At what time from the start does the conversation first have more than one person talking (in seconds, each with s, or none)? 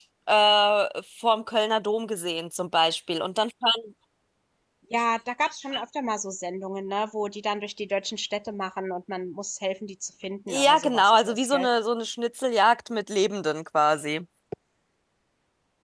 10.5 s